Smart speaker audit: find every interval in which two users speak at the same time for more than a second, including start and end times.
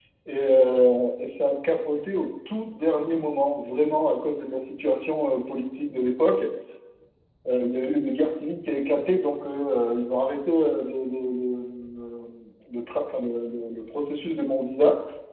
none

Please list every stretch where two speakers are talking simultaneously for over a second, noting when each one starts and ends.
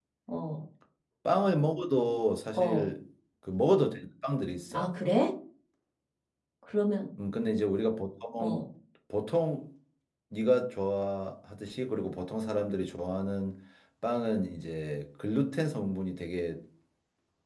none

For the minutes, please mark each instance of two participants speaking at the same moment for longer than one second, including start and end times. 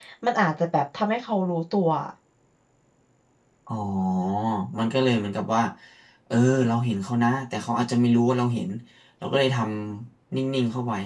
none

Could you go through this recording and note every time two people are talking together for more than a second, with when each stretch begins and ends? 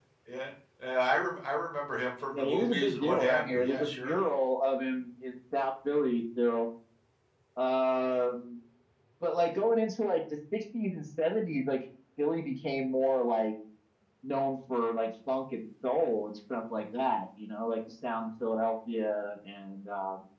2.3-4.2

